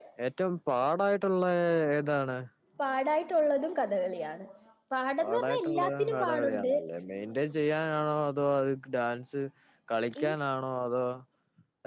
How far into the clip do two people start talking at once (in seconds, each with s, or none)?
5.2 s